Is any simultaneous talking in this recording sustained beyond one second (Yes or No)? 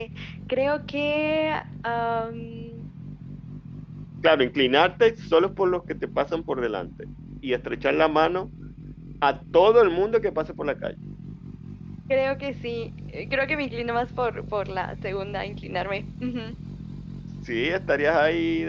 No